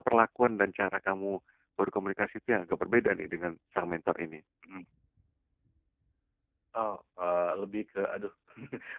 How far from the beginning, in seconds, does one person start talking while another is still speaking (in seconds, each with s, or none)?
none